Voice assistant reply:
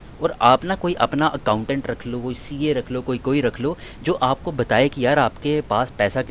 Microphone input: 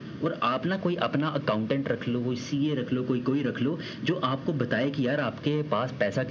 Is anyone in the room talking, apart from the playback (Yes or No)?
No